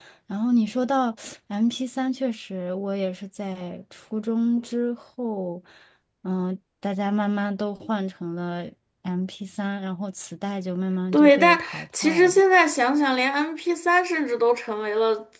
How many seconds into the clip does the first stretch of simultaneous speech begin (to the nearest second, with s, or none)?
11 s